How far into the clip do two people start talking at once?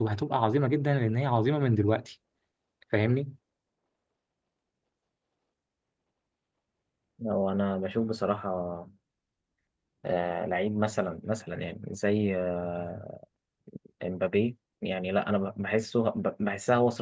none

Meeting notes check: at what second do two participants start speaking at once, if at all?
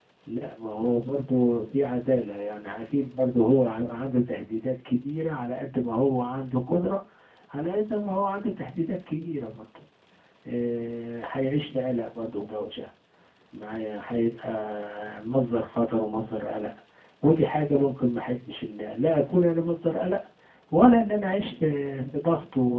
none

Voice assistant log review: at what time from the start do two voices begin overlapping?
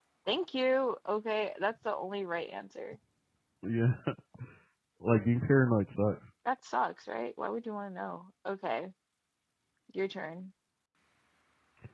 none

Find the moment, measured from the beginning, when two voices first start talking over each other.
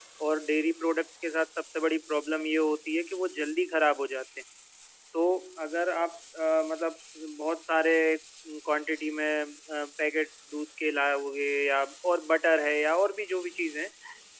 none

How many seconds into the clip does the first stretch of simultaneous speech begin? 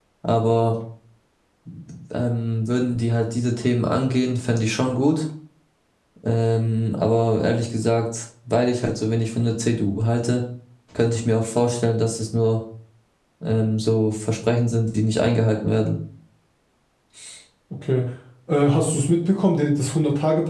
none

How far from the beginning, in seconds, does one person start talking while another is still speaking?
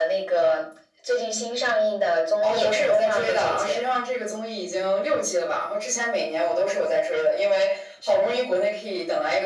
2.4 s

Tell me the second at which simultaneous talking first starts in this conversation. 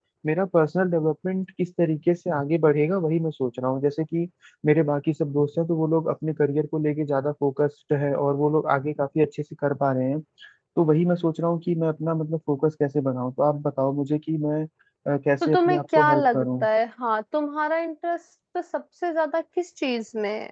15.5 s

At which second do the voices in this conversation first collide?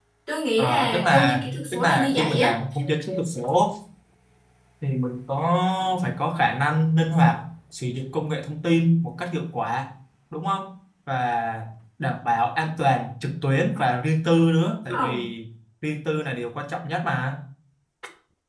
0.6 s

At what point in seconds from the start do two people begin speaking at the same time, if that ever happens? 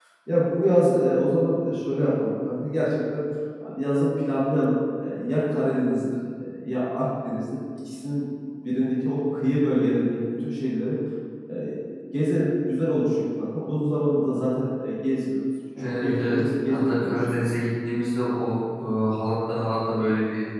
15.8 s

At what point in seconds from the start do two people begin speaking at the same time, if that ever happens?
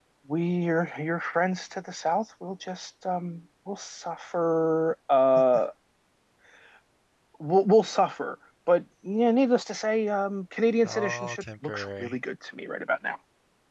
10.8 s

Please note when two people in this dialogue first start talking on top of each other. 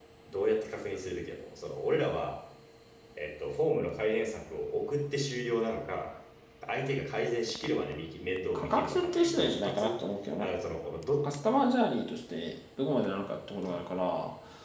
8.6 s

